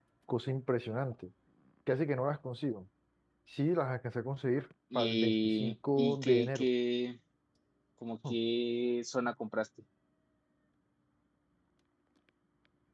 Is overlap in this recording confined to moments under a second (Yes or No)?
No